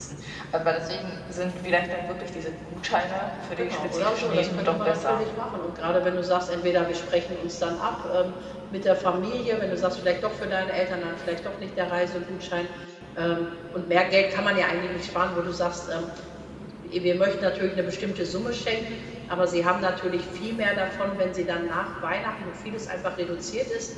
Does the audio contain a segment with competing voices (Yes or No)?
Yes